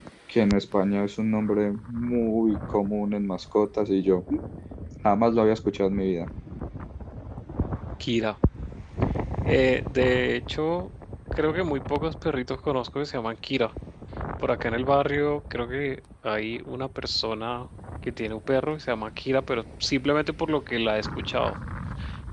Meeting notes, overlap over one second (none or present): none